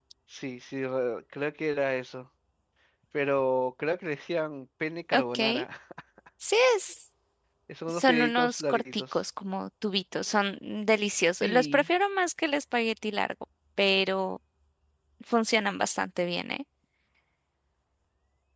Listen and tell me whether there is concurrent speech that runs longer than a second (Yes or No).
Yes